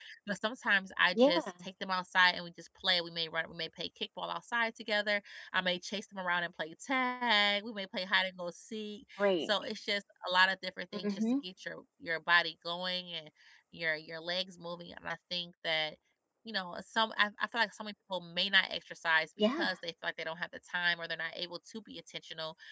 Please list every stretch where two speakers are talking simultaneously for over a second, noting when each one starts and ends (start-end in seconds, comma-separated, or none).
none